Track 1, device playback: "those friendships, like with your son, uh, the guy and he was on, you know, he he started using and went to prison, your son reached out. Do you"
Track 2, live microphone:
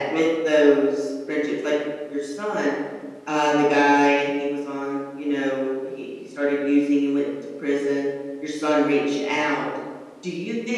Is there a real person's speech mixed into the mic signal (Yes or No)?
No